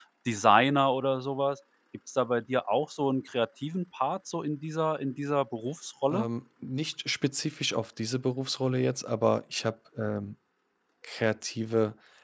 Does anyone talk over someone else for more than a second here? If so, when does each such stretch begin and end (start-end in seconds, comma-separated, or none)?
none